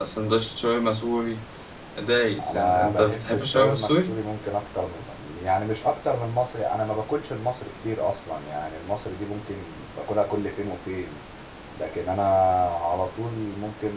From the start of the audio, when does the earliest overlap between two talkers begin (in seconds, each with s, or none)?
2.5 s